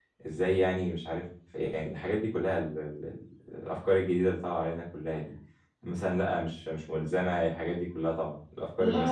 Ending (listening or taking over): taking over